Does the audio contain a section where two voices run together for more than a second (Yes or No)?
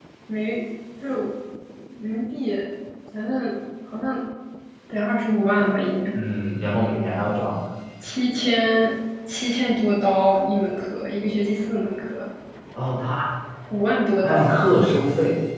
No